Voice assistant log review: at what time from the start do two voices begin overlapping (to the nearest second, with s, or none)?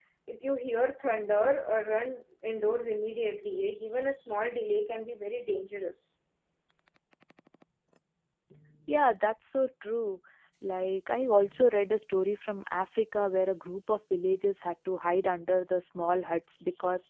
none